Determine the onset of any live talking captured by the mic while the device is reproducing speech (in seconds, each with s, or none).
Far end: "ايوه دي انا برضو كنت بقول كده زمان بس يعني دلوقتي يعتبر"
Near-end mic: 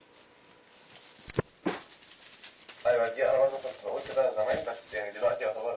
none